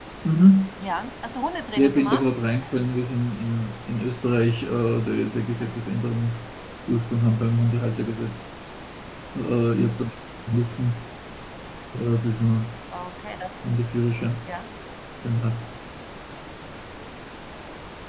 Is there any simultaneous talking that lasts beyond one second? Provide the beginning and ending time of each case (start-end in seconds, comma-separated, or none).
none